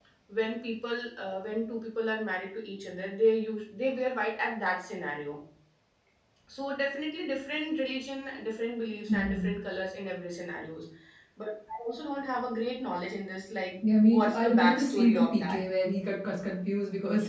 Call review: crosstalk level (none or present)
present